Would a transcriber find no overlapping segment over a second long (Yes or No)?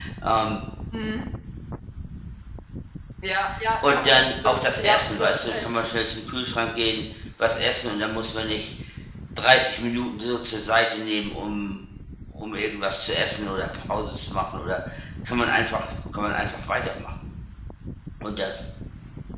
No